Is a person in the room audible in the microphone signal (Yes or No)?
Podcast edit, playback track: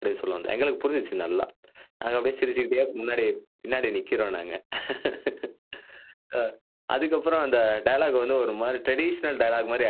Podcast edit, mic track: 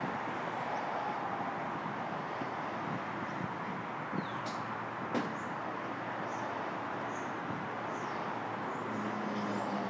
No